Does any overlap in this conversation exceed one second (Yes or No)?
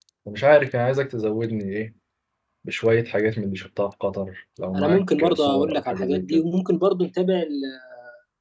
Yes